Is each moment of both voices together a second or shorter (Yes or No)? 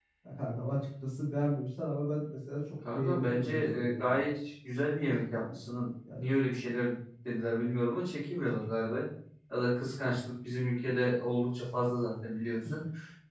No